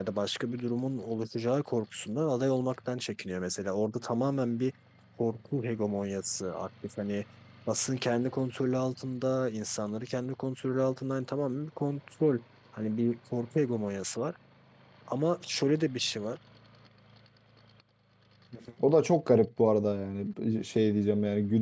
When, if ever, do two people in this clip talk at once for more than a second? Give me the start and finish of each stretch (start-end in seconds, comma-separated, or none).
none